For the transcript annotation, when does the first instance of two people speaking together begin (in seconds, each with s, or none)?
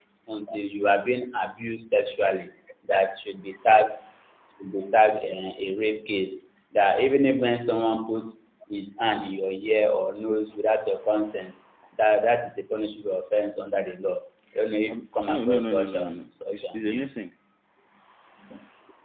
14.9 s